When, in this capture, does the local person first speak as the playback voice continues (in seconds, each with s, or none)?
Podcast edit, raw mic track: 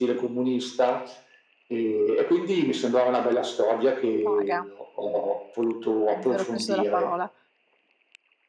4.2 s